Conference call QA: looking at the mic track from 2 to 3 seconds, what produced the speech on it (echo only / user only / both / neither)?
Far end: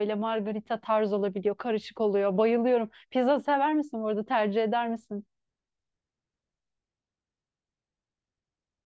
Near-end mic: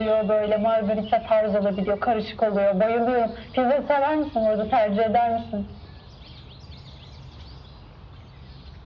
echo only